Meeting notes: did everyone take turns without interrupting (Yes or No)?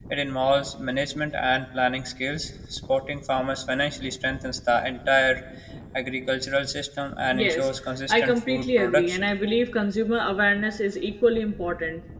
No